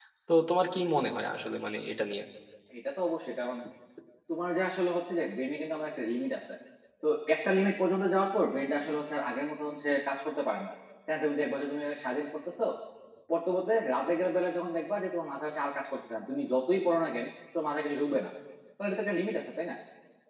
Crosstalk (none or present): none